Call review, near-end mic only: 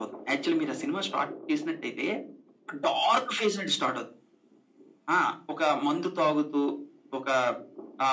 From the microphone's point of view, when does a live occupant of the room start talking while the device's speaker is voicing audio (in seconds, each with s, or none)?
none